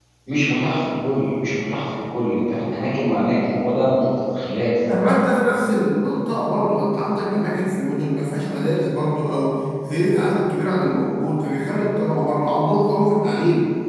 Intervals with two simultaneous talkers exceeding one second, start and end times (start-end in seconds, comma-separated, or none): none